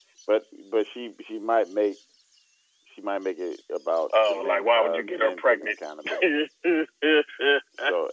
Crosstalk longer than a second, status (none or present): present